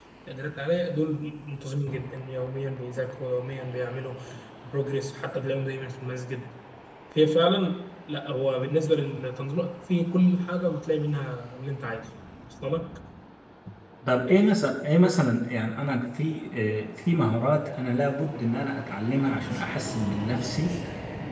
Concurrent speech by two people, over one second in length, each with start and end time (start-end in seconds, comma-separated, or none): none